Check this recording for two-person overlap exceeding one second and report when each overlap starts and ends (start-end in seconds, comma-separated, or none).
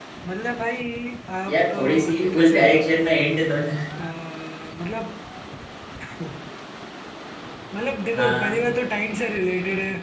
1.5-3.1